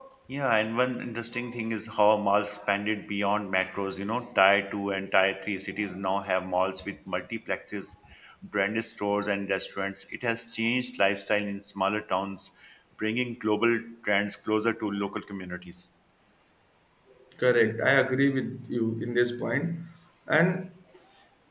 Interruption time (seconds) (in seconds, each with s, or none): none